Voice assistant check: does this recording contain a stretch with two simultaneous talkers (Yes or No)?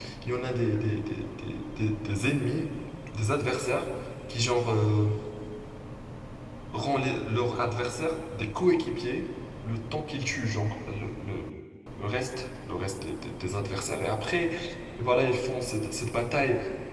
No